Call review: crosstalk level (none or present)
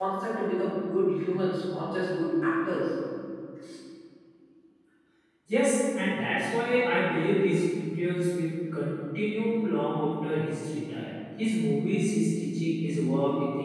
none